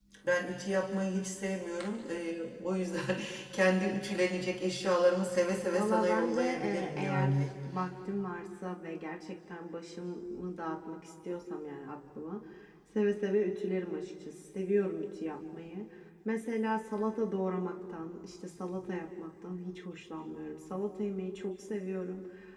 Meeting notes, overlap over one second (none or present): present